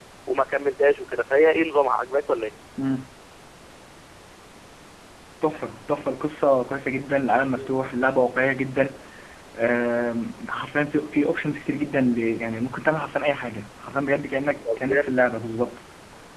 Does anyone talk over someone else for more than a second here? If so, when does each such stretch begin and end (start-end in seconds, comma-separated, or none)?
none